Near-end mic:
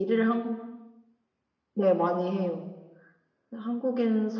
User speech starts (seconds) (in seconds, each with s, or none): none